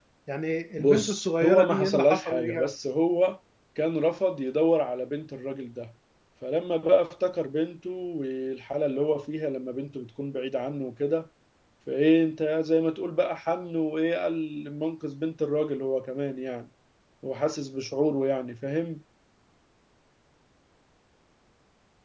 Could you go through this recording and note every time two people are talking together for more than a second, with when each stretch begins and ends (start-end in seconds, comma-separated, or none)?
0.8-2.7